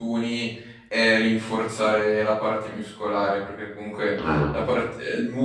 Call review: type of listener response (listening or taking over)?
listening